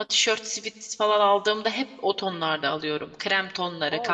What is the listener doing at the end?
taking over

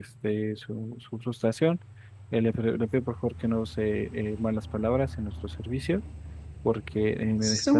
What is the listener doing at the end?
taking over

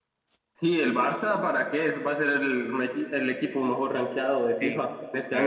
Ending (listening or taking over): taking over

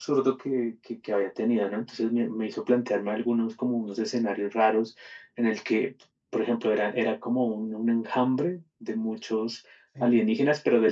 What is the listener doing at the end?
listening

